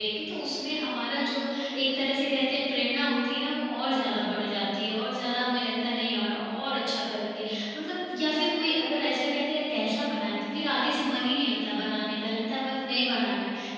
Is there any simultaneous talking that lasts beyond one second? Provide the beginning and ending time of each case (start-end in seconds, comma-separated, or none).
none